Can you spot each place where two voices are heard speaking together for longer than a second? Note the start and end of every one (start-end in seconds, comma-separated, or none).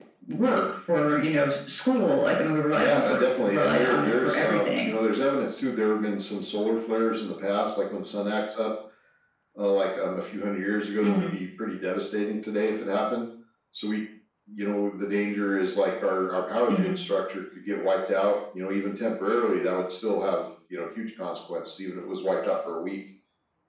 2.7-4.9